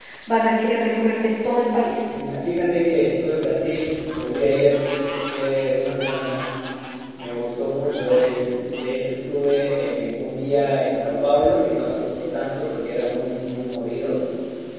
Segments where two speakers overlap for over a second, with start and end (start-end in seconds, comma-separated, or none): none